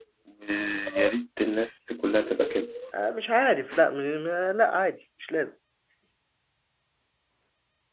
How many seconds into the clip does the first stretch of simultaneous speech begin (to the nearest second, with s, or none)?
none